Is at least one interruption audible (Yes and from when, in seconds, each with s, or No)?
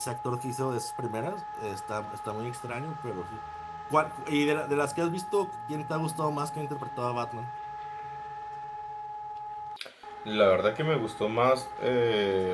No